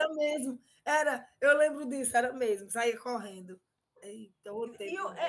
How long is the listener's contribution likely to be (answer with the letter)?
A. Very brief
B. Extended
B